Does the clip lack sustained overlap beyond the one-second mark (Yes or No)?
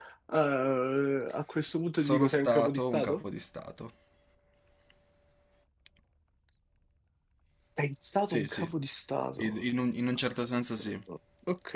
No